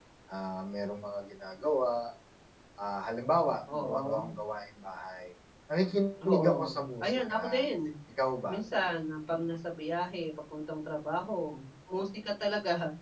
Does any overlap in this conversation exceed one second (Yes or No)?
Yes